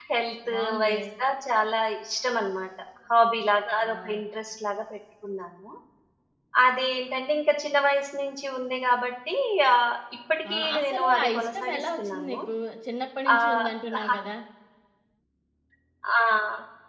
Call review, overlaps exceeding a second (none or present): present